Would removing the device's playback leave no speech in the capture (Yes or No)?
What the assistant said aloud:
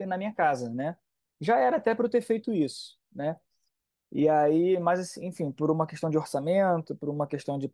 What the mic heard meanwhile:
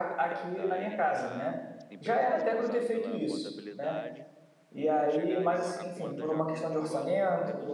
No